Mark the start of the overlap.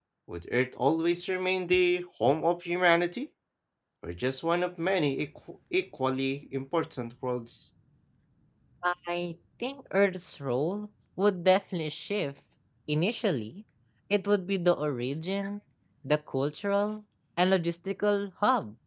none

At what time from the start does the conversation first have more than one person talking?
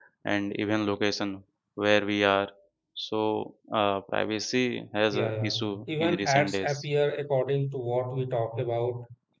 5.1 s

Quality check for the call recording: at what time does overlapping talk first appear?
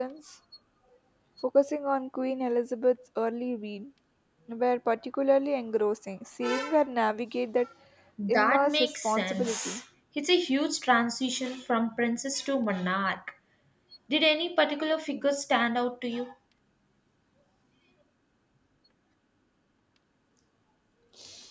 8.3 s

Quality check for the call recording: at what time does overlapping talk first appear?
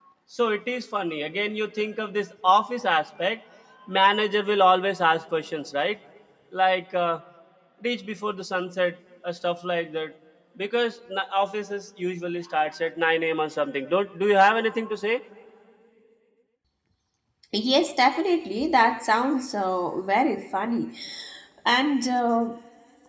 none

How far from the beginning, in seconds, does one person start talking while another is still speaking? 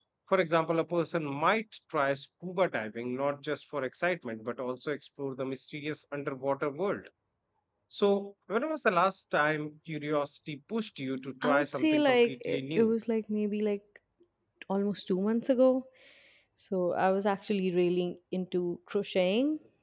11.4 s

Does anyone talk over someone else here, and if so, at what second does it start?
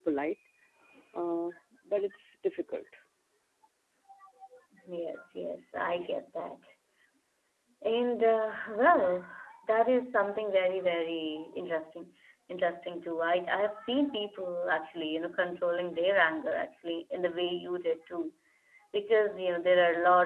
none

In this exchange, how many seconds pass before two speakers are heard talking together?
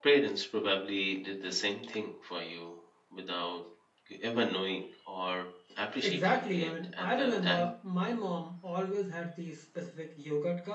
6.0 s

